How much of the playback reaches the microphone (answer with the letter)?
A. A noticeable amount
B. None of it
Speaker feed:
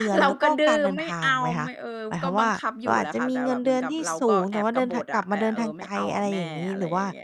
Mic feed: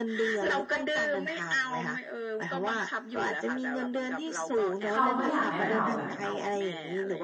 A